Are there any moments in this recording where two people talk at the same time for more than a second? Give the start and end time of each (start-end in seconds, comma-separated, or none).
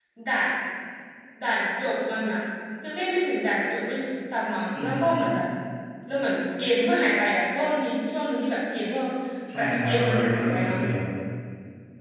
9.6-10.8